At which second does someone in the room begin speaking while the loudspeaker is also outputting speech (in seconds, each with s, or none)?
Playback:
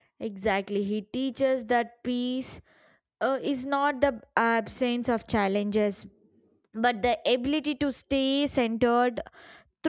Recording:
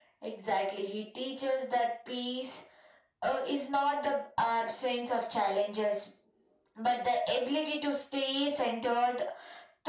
none